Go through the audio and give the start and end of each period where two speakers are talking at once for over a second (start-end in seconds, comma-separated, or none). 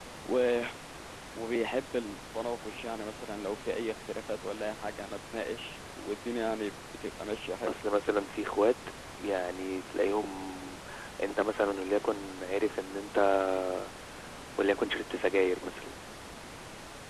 none